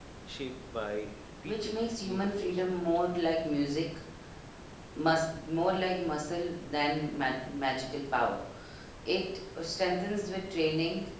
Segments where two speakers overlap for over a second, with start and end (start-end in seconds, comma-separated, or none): 1.4-2.8